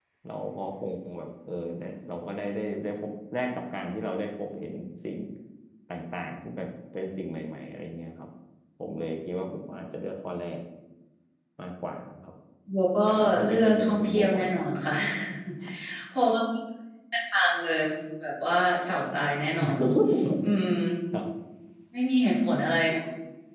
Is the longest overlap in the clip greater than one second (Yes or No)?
Yes